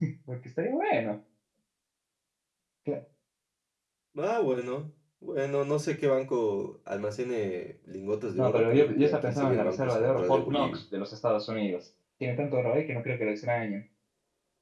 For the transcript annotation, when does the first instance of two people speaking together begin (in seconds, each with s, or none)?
8.4 s